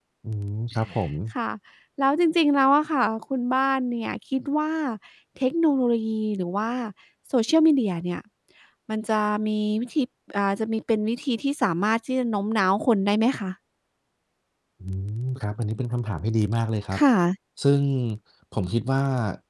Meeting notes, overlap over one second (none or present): none